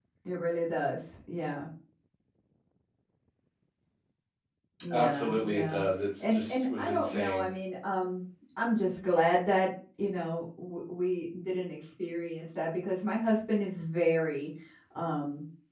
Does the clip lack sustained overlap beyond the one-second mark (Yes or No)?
No